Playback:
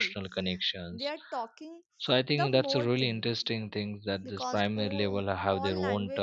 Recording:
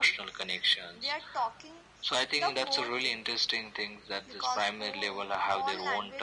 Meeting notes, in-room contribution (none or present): none